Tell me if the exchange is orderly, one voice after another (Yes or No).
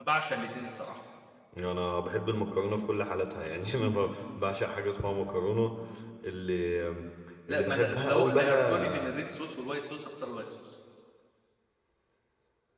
No